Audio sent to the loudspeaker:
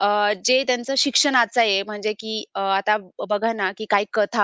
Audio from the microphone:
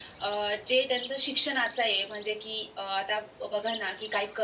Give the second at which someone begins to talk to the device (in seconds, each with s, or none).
none